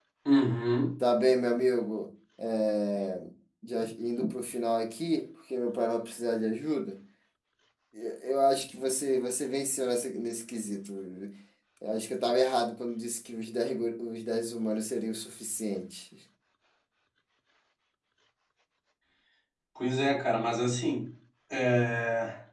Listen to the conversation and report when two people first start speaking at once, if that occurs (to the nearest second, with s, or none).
none